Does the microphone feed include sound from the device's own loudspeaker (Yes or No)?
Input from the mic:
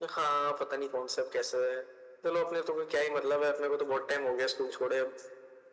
Yes